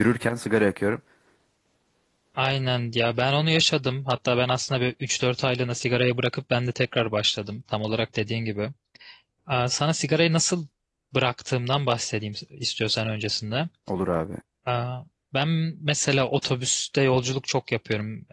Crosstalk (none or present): none